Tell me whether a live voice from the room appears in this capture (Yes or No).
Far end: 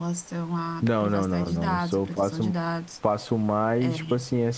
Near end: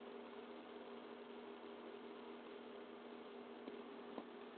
No